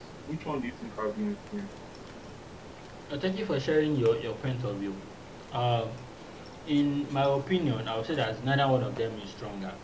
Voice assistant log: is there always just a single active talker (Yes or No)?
Yes